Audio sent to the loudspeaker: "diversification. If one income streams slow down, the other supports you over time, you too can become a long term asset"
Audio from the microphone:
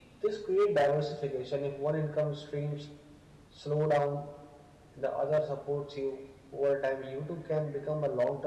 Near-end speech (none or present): none